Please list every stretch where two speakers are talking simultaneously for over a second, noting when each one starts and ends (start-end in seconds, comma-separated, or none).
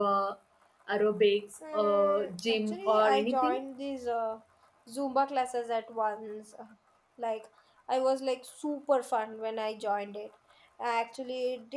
1.7-3.6